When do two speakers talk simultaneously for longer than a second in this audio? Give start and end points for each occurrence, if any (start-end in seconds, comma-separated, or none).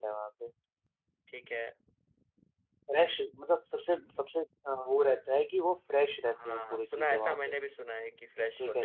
6.3-7.5